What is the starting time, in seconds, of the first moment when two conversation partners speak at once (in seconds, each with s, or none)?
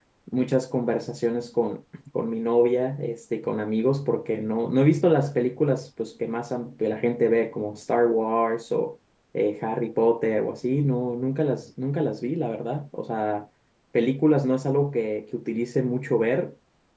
none